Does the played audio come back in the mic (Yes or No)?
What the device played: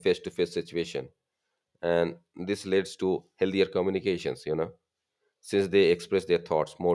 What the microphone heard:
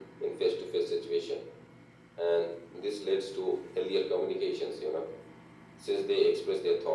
Yes